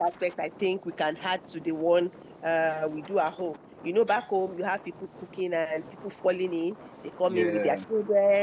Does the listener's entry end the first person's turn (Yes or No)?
No